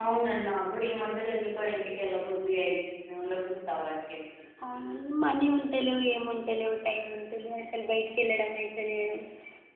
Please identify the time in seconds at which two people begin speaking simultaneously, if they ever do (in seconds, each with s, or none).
none